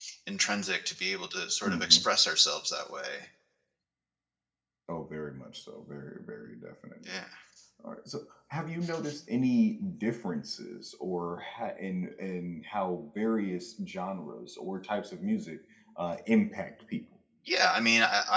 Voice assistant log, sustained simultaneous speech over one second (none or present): none